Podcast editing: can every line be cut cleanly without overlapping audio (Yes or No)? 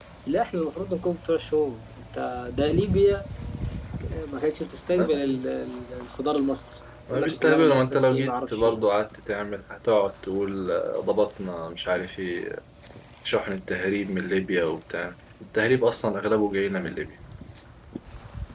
No